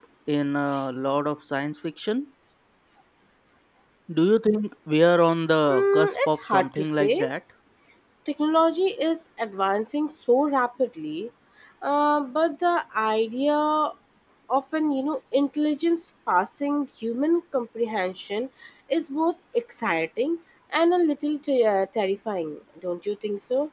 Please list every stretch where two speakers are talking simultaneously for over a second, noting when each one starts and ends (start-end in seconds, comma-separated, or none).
5.7-7.2